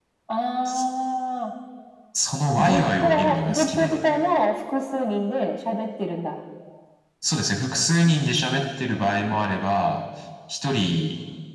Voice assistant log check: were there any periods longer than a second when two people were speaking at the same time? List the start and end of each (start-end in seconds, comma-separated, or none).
2.5-4.0